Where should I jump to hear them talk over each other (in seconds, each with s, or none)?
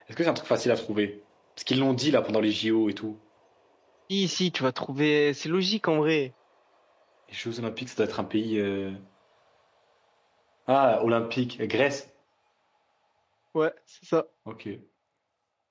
none